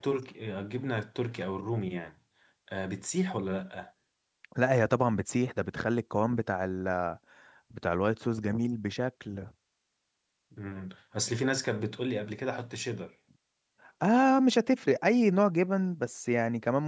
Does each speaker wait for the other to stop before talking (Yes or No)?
Yes